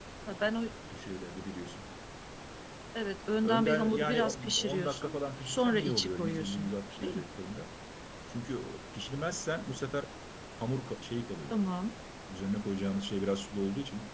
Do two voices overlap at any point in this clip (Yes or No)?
Yes